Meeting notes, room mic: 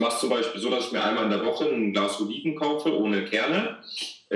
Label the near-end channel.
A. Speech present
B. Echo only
B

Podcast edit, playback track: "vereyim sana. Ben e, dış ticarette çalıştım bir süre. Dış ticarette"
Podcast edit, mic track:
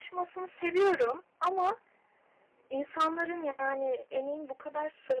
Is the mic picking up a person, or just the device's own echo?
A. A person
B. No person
A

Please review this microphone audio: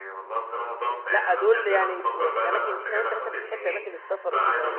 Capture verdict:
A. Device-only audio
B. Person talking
B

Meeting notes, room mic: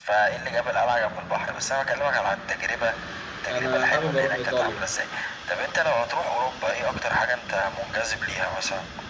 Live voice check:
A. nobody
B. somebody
B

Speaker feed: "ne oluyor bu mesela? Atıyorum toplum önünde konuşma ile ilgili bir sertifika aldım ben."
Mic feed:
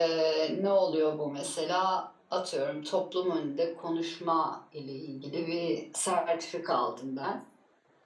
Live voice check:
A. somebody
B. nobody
B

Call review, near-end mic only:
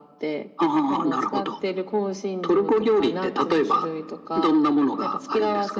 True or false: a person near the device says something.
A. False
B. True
A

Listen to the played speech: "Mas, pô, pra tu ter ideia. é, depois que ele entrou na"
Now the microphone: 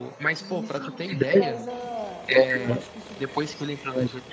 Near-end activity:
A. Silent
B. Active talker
B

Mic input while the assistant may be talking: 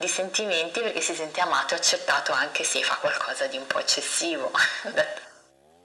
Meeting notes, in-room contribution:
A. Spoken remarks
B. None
B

